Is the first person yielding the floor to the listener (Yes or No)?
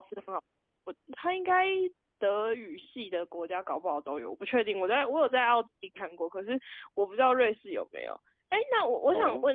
No